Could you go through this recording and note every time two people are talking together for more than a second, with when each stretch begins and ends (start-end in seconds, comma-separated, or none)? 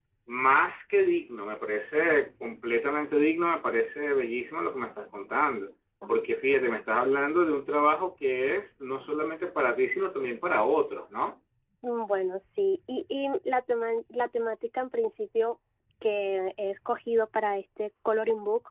none